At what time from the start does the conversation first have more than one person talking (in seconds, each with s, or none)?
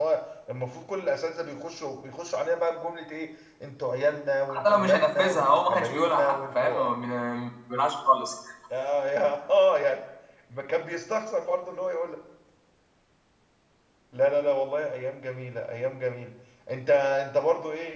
4.5 s